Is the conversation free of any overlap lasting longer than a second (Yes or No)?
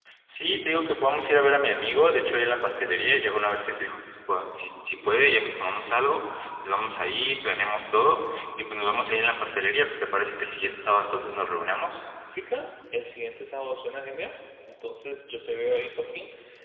Yes